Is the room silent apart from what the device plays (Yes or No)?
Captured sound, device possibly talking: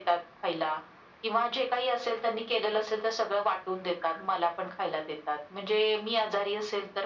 Yes